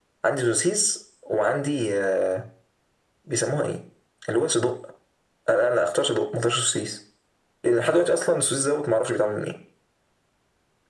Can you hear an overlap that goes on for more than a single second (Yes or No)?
No